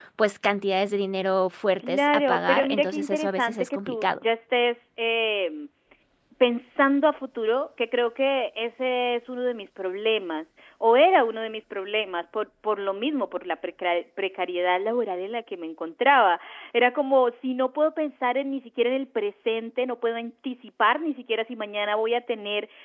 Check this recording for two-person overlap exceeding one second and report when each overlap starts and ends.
1.9-4.2

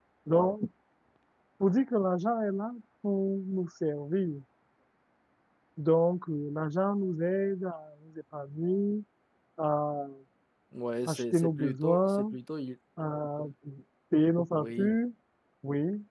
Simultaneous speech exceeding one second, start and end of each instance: 11.1-12.3

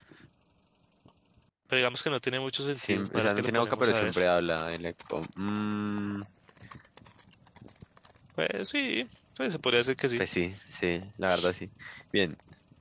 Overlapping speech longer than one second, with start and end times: 2.8-4.1

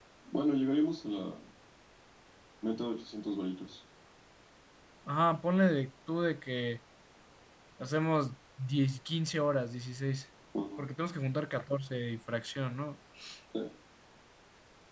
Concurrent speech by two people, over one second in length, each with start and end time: none

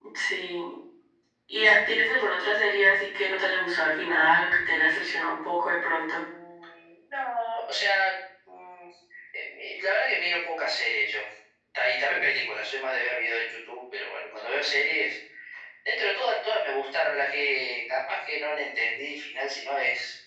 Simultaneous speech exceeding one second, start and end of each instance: none

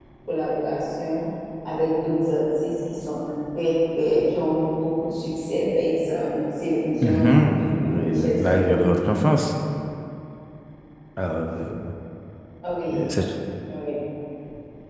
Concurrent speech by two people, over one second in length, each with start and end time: 7.0-8.9

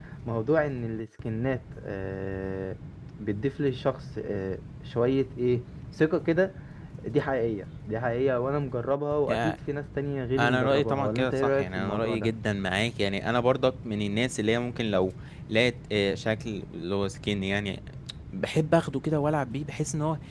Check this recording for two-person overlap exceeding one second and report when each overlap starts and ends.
10.4-12.3

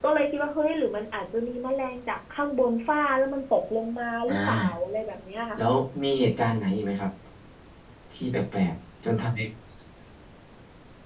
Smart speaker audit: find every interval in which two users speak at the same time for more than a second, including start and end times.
none

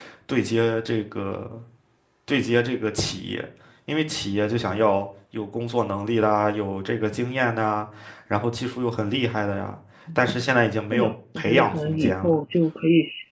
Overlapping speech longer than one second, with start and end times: 10.9-12.4

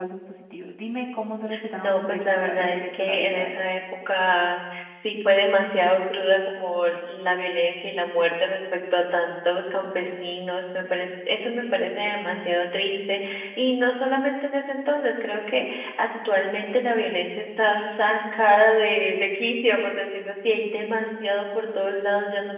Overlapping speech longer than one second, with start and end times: 1.8-3.6

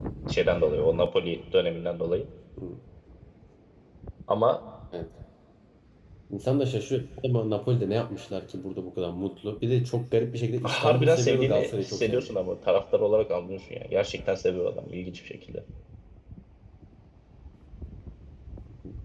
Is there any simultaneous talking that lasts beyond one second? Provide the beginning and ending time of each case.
10.6-12.3

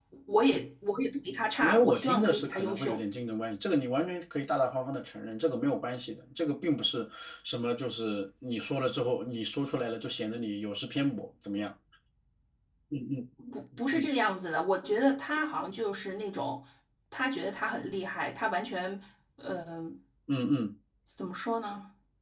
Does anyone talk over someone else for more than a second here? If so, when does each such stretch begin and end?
1.6-3.0

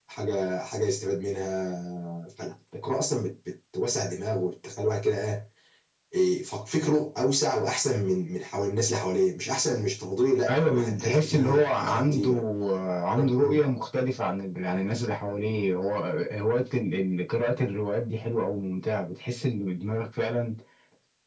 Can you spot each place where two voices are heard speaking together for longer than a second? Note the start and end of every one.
10.5-12.3

